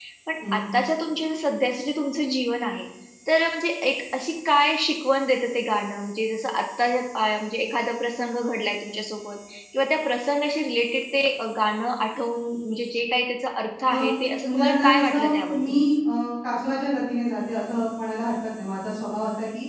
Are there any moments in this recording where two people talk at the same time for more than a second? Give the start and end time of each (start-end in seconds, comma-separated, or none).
14.4-15.8